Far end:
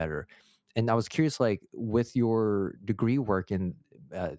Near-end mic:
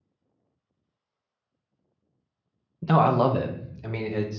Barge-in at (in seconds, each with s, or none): 2.9 s